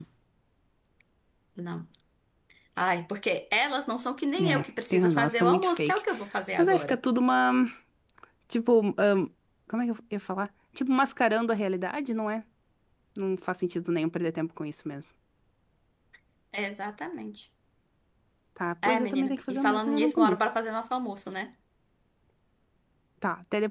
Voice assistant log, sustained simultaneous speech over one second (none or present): present